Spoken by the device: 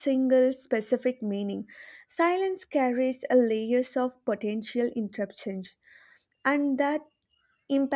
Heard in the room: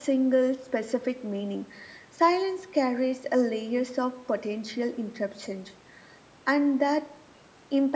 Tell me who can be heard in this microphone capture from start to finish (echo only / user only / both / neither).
echo only